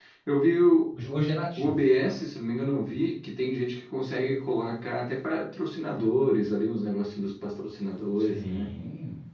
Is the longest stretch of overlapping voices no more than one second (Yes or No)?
Yes